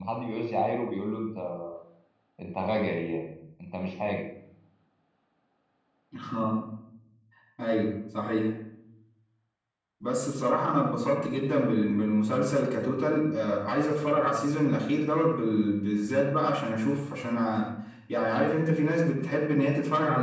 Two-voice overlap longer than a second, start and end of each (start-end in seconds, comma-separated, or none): none